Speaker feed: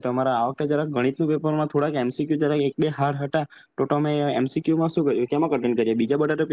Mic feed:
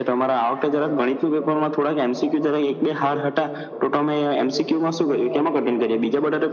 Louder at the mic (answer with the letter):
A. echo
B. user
A